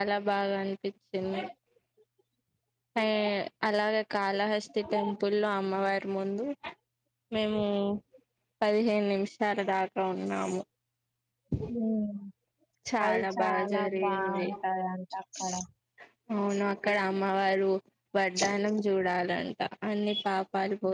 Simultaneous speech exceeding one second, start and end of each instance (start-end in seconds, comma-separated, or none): 13.1-14.4